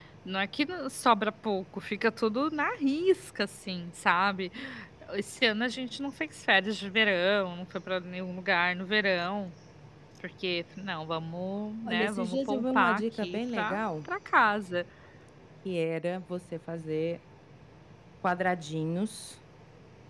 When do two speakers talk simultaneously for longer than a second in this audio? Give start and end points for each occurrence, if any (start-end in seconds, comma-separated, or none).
11.9-13.8